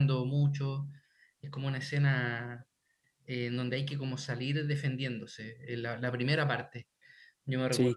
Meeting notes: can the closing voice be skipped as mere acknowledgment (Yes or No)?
No